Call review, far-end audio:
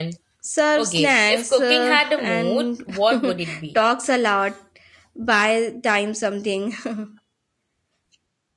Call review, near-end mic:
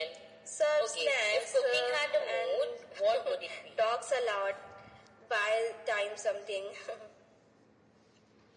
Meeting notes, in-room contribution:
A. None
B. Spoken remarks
A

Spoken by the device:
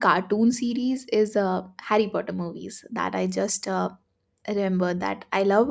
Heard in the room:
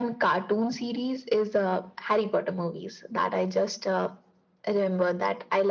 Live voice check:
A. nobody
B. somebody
A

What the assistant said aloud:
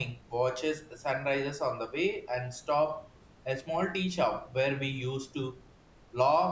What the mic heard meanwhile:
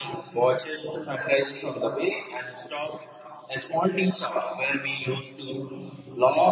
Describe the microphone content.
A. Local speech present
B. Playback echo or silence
B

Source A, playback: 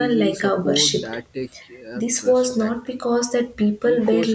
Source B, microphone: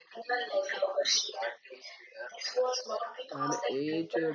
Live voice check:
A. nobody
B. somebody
B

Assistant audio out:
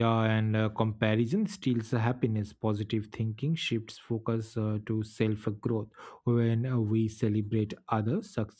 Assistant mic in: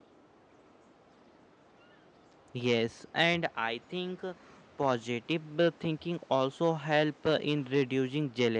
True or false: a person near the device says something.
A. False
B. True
B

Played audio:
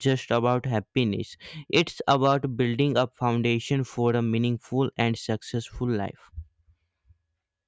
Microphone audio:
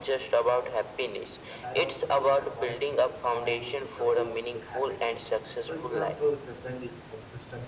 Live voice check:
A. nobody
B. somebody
B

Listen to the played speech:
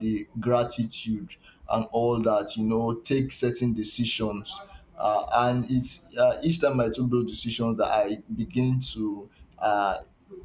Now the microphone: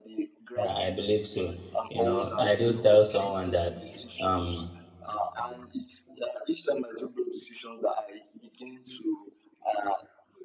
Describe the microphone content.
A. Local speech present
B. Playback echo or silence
A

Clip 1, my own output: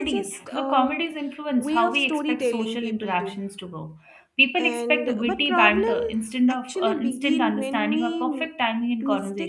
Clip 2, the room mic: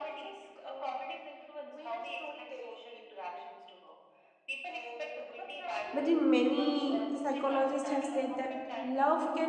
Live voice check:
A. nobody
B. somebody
B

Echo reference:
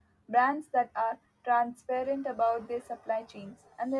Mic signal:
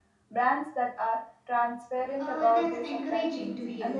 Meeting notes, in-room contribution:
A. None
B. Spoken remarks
B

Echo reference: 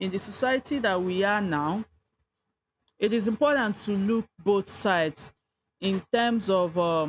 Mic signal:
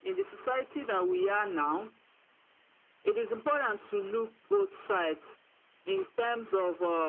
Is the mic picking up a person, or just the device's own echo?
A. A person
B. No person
B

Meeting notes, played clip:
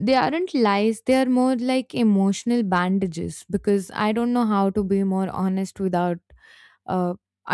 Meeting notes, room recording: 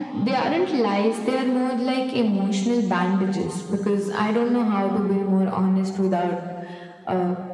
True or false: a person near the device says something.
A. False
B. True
A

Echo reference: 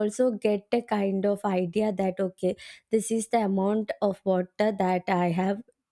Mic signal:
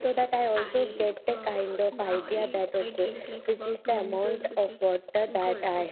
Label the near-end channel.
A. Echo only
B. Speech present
B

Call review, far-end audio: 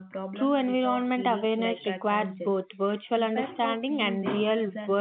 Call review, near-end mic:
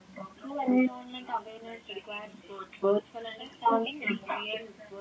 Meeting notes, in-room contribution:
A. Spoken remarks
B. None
B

